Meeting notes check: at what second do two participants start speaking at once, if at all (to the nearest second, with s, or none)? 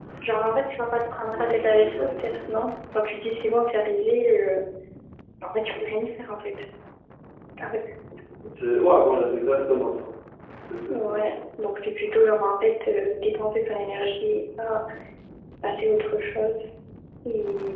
1 s